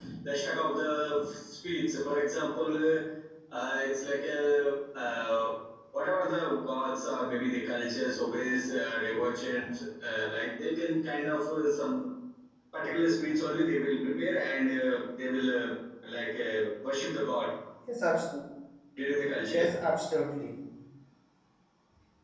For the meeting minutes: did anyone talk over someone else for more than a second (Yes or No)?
No